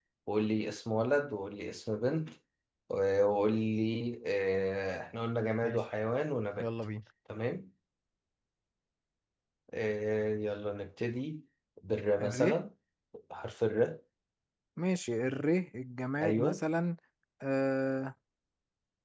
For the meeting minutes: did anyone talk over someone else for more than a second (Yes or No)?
No